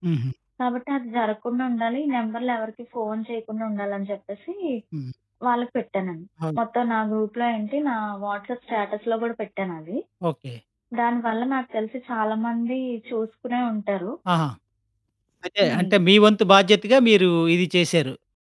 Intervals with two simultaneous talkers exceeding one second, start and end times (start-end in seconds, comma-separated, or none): none